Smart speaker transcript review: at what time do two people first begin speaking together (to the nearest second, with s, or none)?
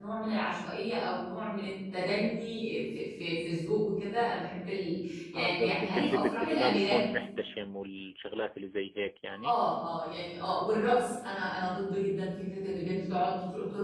5 s